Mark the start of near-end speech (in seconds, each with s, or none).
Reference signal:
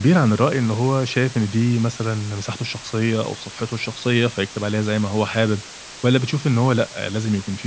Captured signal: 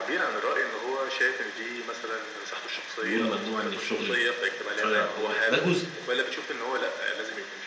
3.0 s